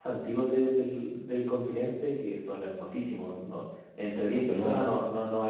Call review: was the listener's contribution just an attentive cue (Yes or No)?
Yes